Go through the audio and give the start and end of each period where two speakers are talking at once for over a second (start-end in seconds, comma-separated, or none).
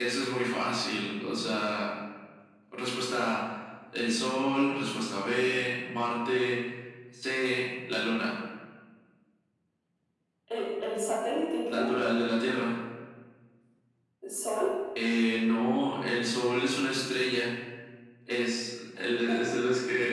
none